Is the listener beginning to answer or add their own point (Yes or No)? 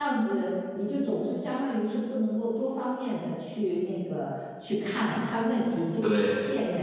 No